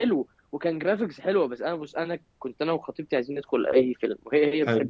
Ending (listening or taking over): listening